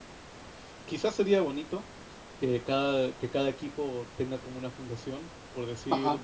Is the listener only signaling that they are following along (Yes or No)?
Yes